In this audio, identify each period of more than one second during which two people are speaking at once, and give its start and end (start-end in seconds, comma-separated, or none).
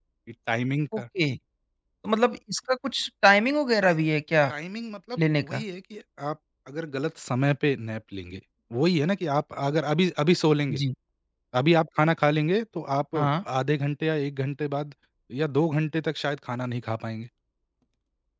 none